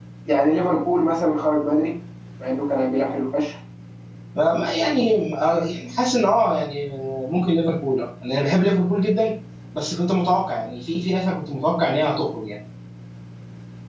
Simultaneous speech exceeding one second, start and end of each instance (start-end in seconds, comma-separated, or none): none